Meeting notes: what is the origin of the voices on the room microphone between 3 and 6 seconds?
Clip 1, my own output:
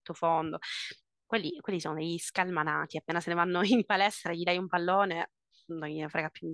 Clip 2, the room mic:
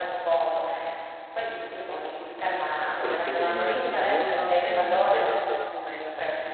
both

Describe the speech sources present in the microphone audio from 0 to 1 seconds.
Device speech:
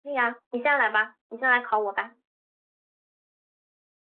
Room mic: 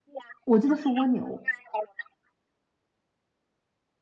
both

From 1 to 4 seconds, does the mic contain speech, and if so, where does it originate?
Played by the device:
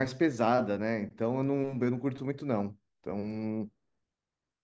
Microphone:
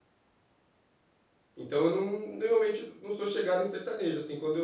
user only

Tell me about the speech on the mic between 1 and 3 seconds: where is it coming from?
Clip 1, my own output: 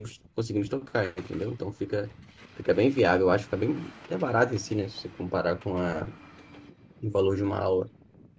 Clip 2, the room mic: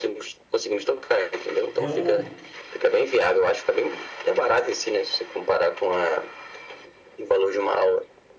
both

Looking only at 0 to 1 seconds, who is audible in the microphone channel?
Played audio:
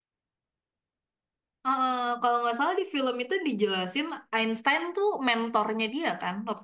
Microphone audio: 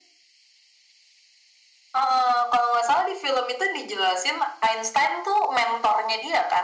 neither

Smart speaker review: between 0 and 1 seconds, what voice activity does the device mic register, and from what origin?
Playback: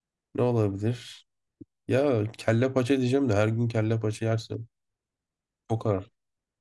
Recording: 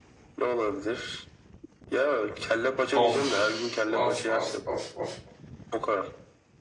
echo only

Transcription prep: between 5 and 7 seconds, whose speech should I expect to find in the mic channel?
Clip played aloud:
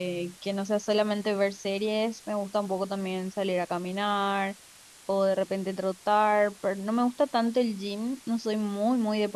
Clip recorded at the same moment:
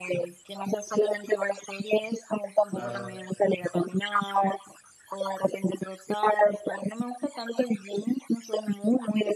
echo only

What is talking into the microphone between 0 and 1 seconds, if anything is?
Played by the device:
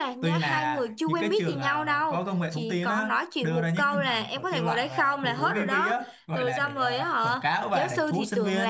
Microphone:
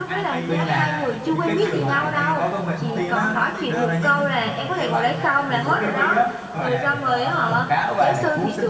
both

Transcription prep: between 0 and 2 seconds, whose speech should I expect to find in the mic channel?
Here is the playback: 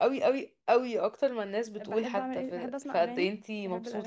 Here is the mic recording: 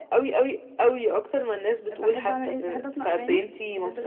echo only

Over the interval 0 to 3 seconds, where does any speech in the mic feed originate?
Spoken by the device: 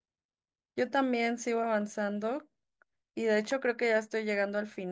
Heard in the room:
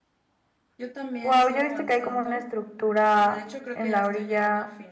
both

